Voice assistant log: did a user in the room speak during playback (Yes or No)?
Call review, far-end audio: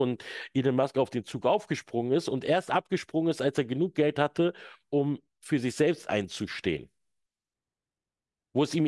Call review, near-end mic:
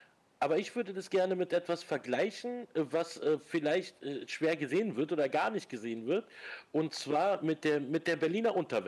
Yes